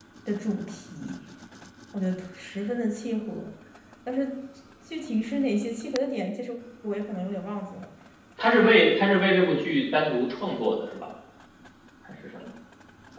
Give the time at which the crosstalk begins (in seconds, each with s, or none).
none